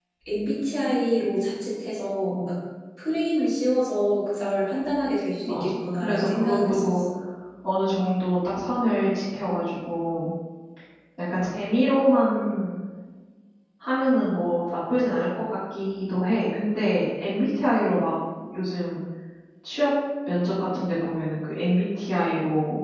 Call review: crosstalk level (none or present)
present